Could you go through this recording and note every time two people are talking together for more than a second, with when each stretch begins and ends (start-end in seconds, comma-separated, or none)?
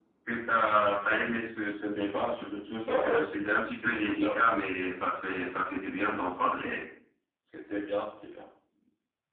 2.9-4.6